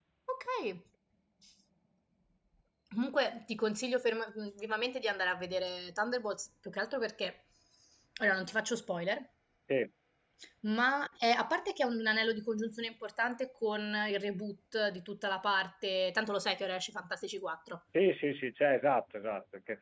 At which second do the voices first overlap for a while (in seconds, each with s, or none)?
none